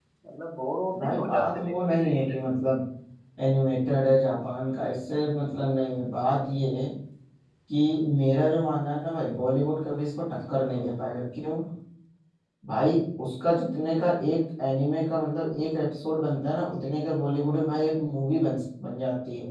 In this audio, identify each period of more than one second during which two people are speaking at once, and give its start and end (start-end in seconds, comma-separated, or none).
1.0-2.3